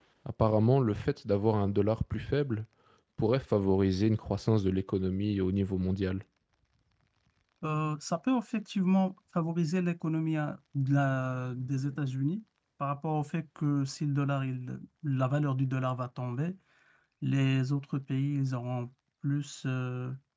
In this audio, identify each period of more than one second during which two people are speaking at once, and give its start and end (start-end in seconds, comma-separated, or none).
none